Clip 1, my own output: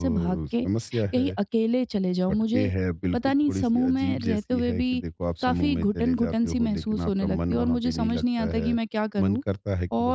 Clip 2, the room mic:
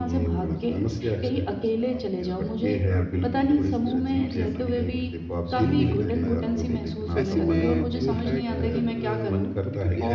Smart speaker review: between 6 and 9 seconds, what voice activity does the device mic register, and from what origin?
both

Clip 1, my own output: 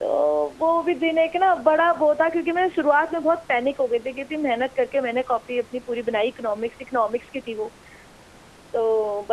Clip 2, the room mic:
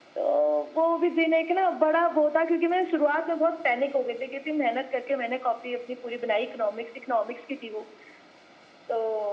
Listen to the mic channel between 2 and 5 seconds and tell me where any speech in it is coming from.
echo only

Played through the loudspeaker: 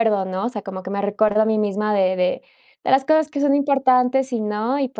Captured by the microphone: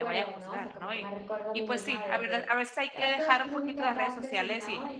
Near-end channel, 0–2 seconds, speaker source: both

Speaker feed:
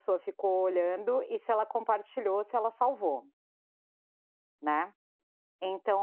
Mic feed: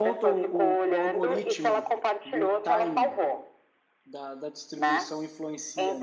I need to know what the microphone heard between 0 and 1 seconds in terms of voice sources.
both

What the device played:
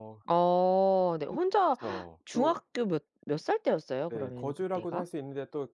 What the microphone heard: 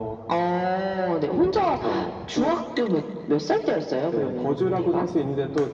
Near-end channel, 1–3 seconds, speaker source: echo only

